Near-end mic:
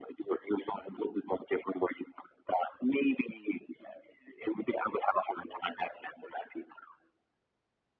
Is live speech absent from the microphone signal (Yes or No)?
Yes